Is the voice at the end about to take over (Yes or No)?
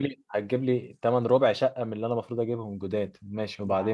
Yes